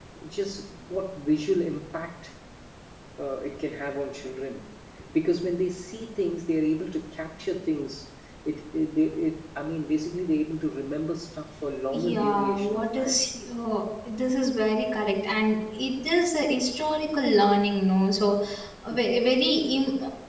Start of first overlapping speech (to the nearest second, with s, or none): 12 s